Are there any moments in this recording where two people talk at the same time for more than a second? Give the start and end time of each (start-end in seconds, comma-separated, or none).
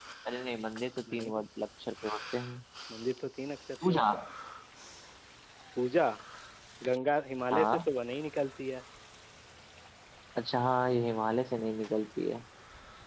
none